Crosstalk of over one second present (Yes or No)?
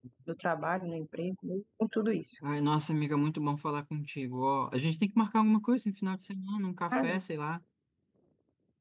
No